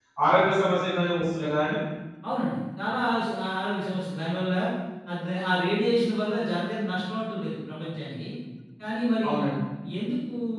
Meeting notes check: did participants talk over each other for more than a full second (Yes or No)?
No